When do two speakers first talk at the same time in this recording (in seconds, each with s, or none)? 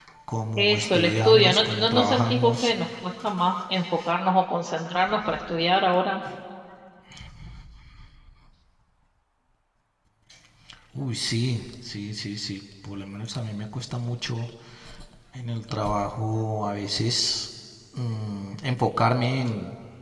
0.6 s